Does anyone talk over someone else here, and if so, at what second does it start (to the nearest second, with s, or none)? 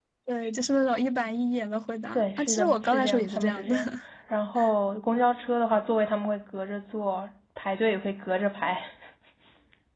2 s